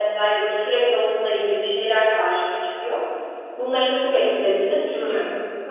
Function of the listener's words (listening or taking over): taking over